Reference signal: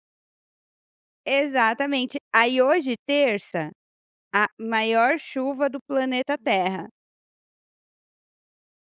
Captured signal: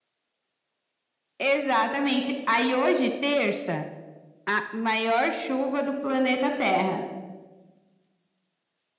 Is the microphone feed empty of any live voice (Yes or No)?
Yes